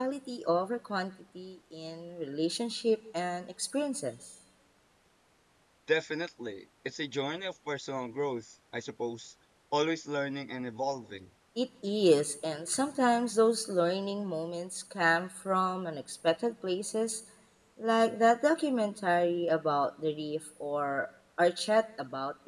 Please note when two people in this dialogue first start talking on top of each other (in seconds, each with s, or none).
none